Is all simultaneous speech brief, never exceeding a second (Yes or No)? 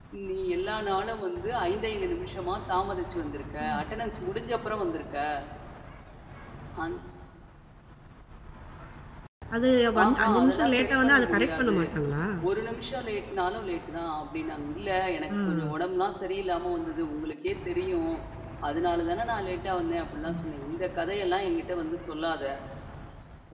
No